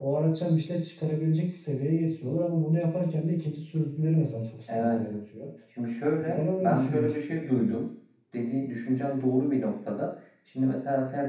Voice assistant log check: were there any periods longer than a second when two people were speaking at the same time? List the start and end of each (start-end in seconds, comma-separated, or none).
6.2-7.7